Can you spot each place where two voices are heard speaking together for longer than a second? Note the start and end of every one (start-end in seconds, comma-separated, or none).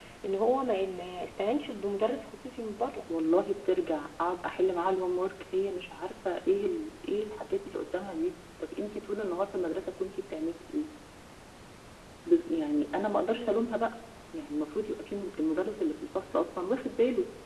none